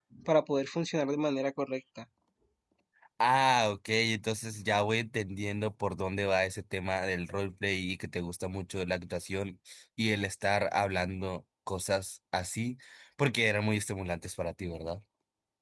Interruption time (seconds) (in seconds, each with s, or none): none